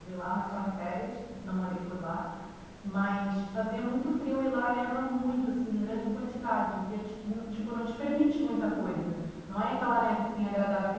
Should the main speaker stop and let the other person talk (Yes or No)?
No